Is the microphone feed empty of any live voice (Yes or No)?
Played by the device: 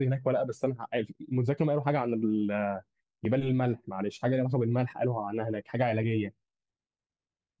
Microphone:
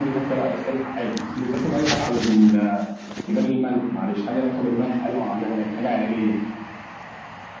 Yes